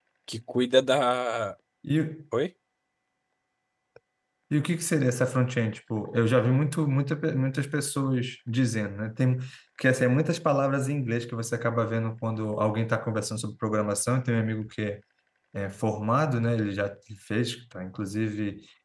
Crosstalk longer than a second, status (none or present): none